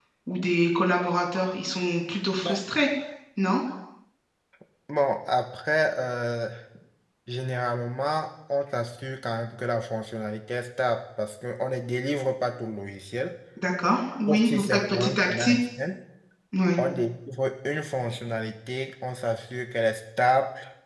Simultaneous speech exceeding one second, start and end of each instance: 14.3-15.6

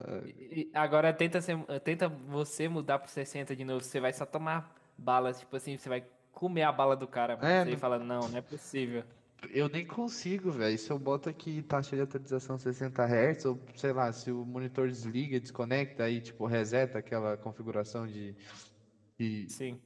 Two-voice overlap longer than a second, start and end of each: none

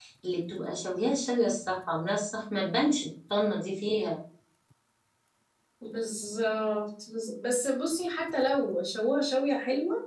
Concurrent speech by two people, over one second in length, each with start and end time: none

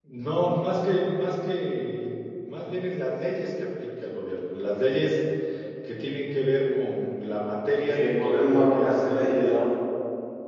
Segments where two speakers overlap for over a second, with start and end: 7.9-9.6

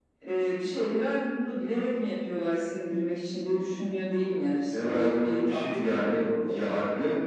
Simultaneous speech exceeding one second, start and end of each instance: 4.7-6.6

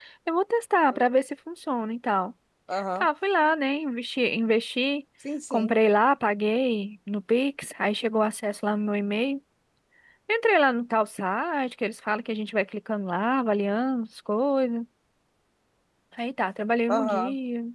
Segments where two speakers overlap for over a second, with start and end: none

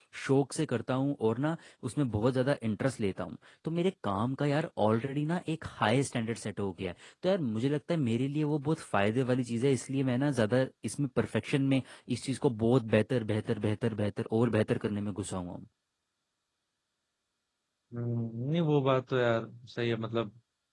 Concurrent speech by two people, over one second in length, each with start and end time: none

